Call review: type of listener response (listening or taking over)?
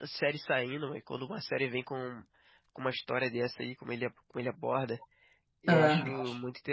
listening